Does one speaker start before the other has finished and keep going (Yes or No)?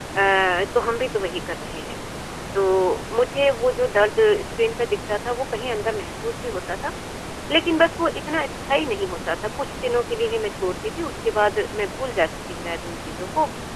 No